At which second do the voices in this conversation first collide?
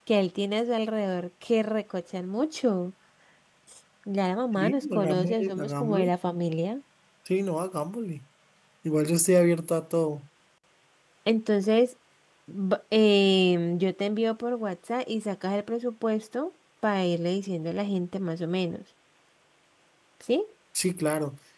5 s

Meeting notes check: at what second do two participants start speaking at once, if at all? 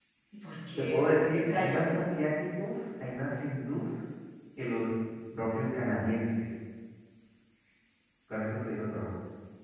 1 s

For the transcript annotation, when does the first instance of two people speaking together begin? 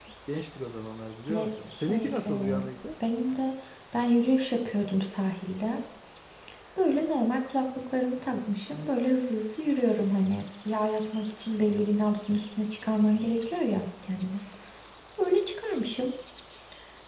1 s

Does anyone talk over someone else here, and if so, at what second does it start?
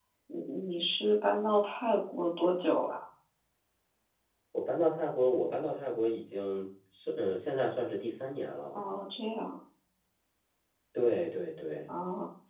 none

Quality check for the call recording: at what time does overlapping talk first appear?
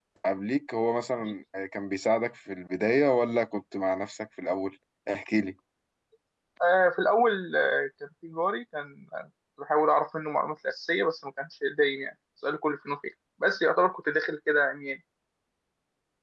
none

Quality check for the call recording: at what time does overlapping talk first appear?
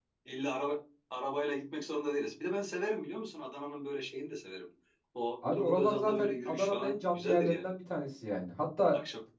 6 s

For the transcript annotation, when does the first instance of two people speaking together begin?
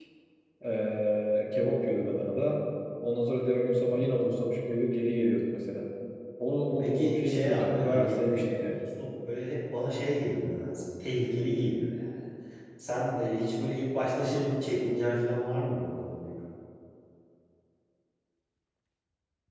7 s

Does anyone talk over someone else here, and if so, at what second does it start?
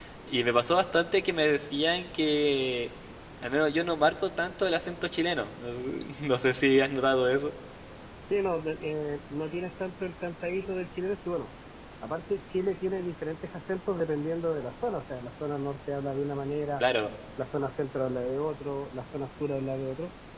none

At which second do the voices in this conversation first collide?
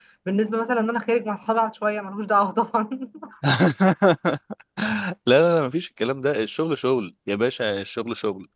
none

